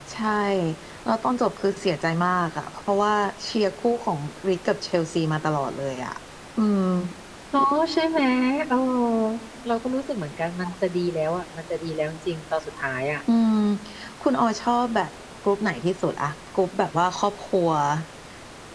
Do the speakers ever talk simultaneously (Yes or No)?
No